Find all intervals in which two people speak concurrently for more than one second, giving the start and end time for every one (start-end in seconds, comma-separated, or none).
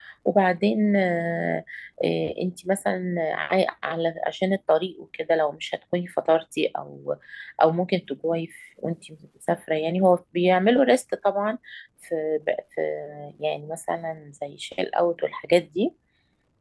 none